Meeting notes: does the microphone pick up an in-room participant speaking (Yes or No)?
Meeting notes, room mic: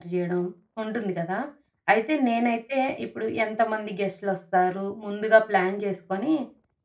Yes